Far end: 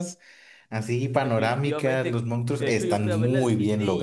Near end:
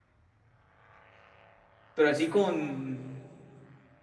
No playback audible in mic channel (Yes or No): Yes